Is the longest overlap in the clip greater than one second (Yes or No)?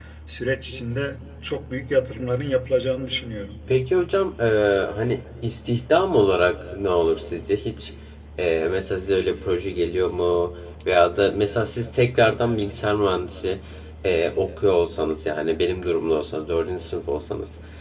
No